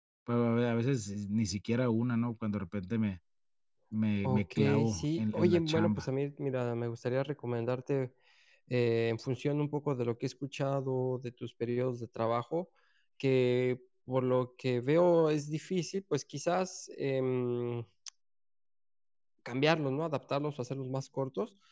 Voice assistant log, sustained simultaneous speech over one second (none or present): present